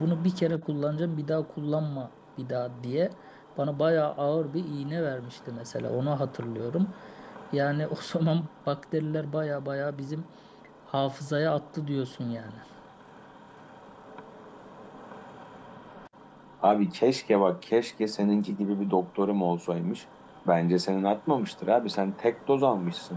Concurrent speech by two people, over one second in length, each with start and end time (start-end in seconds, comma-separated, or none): none